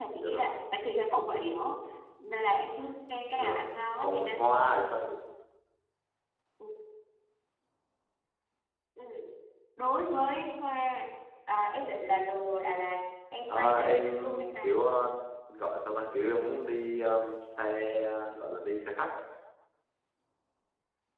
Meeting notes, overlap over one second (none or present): present